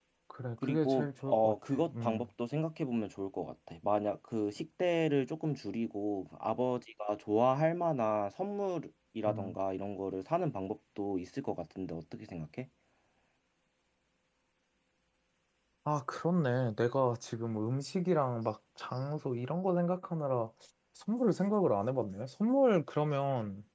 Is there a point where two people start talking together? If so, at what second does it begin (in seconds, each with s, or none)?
0.6 s